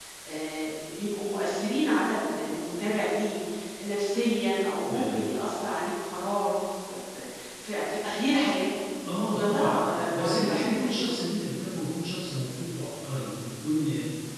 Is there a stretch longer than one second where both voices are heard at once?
Yes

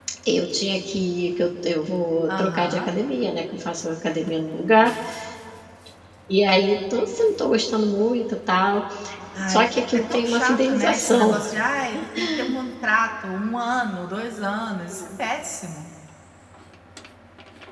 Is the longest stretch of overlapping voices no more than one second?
No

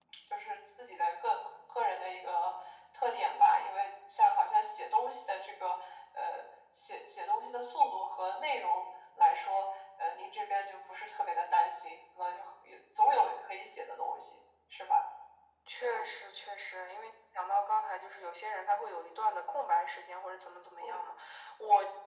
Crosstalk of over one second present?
No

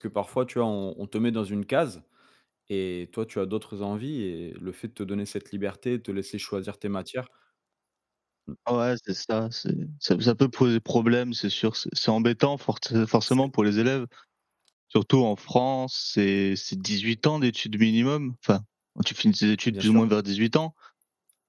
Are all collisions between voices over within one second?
Yes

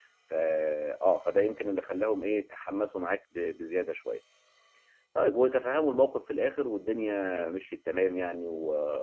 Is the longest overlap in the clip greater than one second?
No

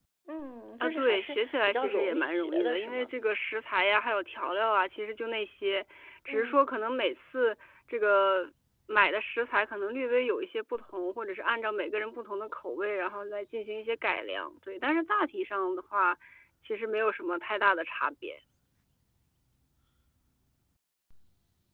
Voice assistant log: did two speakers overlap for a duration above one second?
Yes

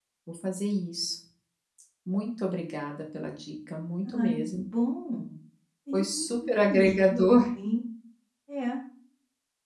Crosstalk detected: Yes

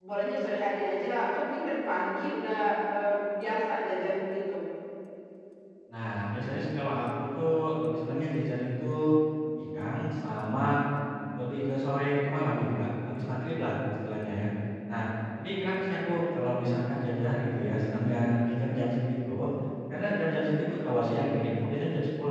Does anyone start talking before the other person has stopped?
No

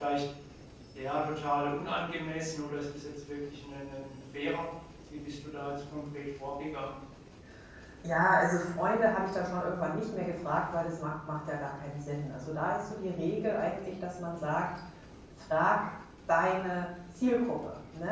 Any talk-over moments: No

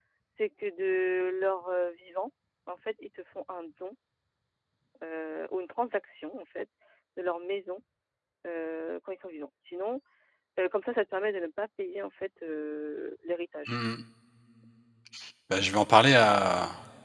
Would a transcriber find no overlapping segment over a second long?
Yes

